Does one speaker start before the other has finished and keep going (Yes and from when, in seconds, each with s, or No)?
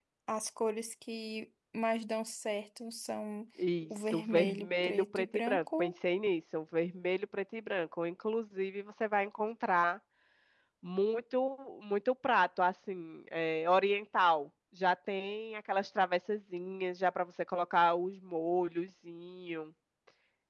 Yes, from 3.9 s